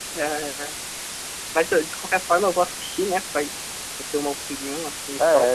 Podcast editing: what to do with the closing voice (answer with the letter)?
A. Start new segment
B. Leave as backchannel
A